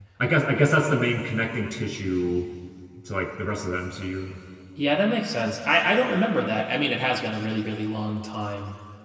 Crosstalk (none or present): none